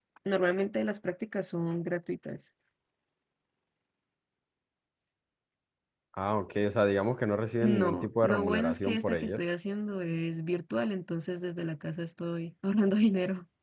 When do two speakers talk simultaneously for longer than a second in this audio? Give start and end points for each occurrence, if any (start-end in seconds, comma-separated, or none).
7.6-9.4